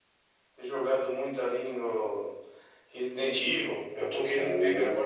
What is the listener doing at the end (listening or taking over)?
listening